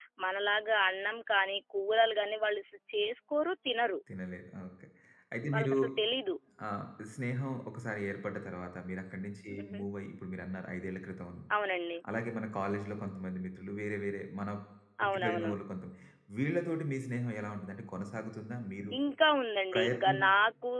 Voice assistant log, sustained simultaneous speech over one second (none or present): none